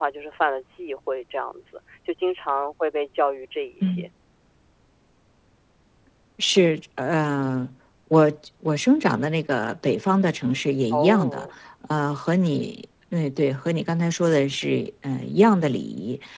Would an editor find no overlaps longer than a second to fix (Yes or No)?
Yes